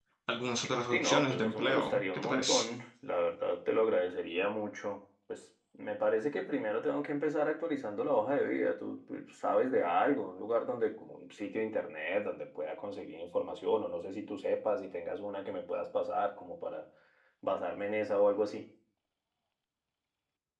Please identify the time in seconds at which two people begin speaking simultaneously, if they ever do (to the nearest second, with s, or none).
1 s